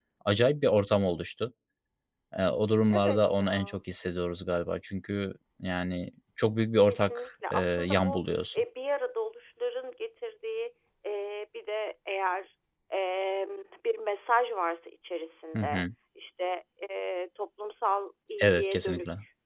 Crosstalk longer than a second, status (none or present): present